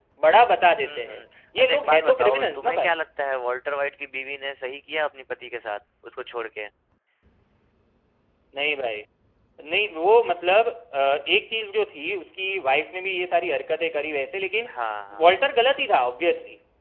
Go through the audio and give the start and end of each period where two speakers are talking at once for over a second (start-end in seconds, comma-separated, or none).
1.6-3.0